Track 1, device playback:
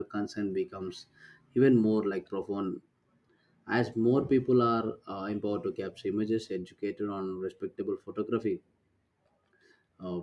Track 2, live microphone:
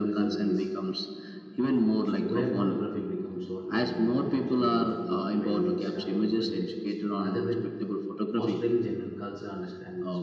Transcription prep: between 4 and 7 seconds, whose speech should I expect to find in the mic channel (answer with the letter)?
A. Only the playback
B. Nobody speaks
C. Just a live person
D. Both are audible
D